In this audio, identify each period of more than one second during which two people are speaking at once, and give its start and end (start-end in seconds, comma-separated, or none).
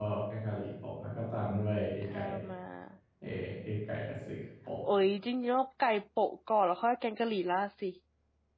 none